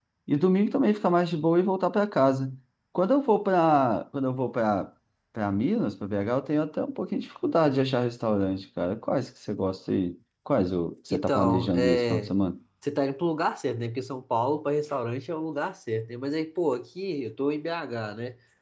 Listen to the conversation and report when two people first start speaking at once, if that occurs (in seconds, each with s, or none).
11.1 s